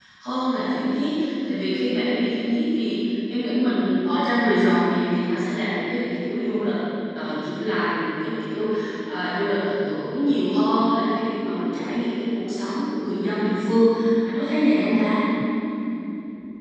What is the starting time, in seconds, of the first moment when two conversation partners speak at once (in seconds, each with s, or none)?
none